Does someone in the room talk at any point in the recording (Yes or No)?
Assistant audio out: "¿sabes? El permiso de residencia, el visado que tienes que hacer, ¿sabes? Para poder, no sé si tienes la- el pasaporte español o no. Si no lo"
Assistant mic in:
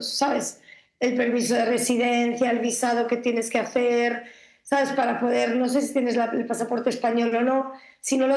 No